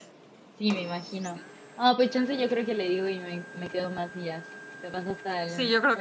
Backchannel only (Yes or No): No